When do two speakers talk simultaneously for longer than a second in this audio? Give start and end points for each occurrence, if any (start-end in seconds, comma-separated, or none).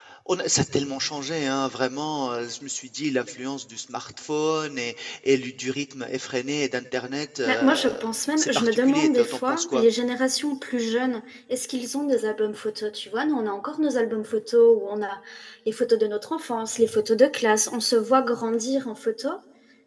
8.4-9.8